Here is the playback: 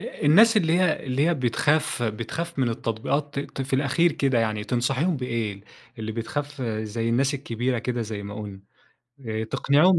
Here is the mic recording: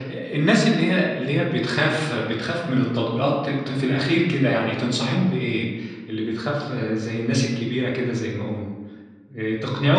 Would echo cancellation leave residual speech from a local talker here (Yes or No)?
No